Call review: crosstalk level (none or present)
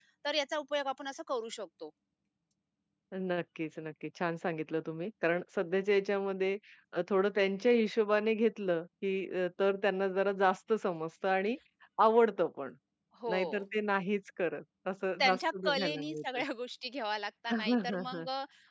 present